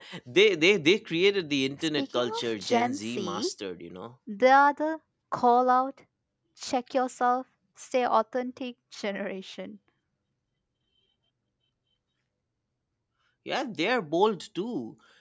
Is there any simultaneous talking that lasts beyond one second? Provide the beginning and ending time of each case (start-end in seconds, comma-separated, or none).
1.8-3.5